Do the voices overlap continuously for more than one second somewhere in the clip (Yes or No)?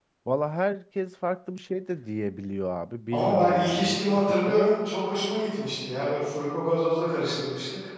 Yes